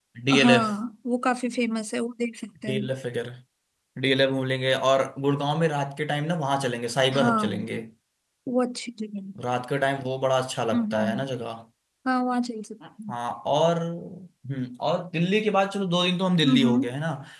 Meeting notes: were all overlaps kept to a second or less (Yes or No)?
Yes